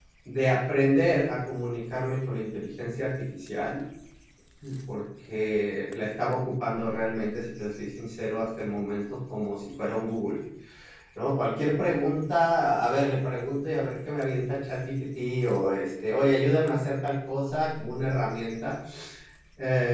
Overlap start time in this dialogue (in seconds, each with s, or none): none